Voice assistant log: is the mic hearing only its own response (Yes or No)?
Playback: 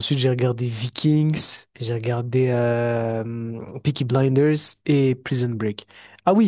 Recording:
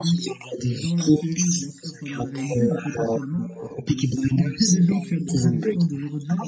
No